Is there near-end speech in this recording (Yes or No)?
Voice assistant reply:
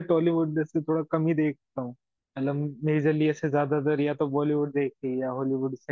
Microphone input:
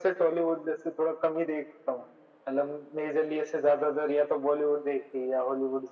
No